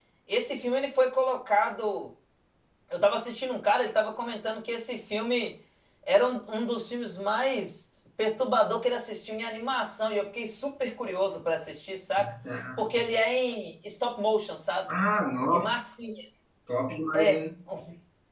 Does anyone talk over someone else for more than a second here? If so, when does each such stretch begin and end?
none

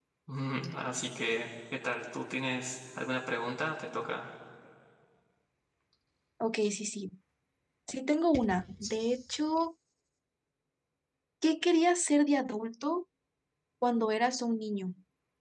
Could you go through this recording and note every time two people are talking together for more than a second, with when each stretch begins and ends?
none

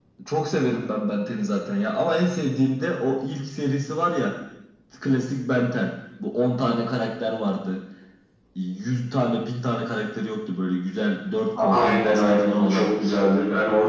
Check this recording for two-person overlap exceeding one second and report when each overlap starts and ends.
11.6-12.8

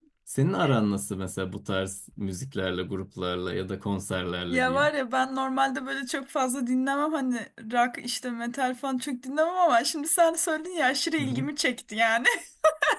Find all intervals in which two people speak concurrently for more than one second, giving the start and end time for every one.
none

